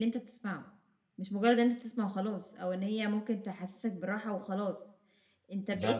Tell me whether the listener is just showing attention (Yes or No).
Yes